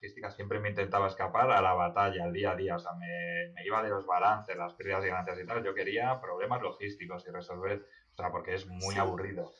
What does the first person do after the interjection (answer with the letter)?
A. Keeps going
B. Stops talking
A